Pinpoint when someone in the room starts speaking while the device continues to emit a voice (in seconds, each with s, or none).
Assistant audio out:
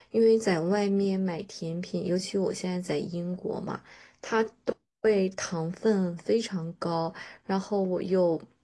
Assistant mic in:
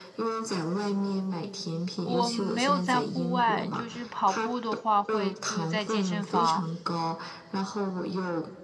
2.0 s